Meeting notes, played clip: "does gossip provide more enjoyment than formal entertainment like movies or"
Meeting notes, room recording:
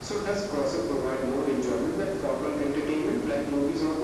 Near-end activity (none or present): none